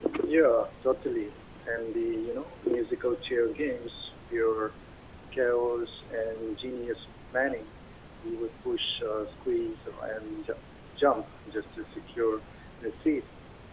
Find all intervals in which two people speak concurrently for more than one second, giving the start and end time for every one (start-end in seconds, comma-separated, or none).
none